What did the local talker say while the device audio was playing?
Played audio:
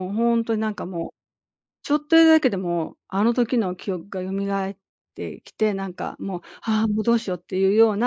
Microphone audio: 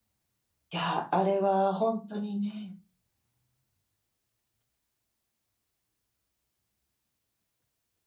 や、あれはほんとにね

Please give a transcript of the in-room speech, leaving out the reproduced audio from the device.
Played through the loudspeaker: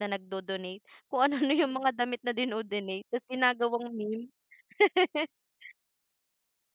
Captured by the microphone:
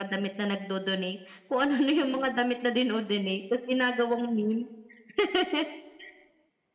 none

